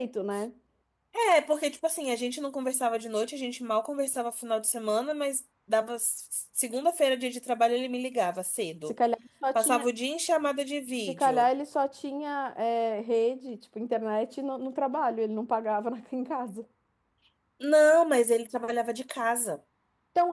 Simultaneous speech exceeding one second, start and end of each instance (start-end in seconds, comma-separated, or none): none